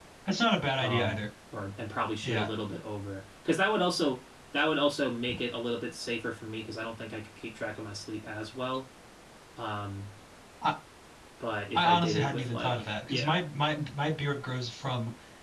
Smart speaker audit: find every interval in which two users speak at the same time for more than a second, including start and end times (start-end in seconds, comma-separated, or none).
11.8-13.4